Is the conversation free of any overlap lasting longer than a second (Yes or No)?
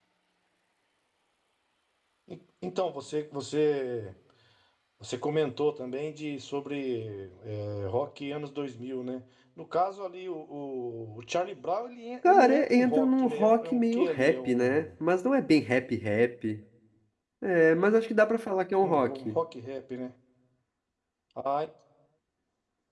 No